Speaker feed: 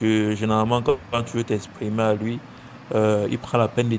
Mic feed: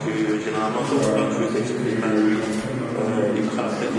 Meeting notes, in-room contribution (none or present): present